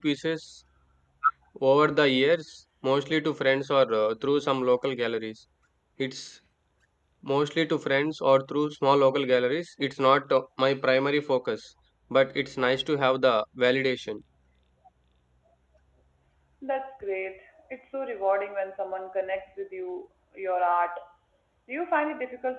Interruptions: none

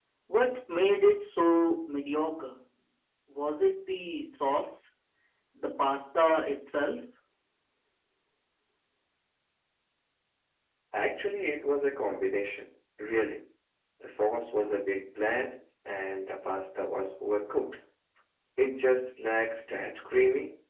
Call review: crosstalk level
none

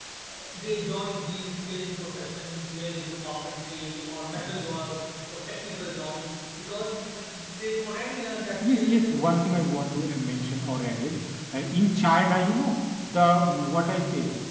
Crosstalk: present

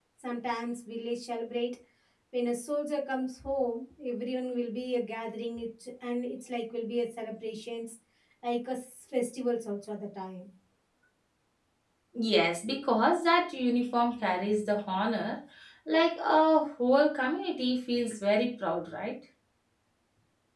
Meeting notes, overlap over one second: none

